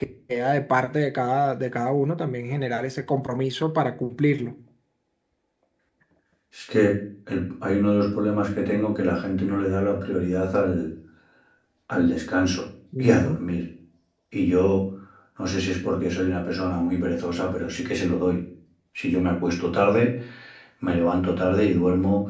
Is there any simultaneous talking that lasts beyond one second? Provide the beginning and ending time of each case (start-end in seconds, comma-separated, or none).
none